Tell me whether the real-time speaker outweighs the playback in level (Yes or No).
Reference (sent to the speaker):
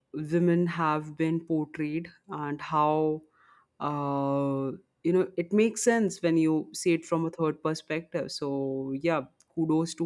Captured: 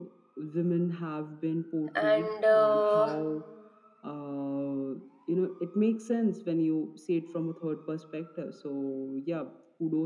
Yes